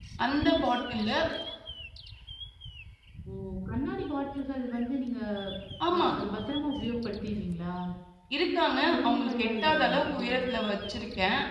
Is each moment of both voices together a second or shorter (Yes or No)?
No